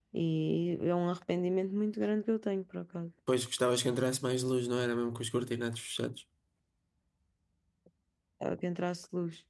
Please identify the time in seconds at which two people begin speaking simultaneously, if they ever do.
none

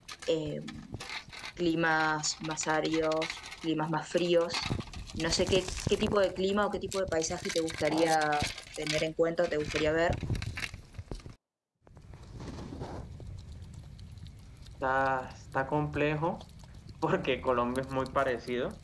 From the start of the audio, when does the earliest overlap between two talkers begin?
none

